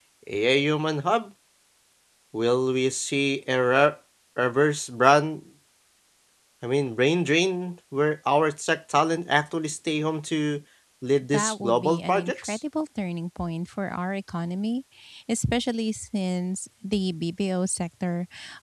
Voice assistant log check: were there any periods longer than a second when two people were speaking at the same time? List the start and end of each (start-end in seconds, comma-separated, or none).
11.3-12.6